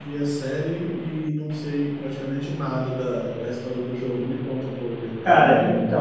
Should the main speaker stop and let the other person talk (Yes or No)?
Yes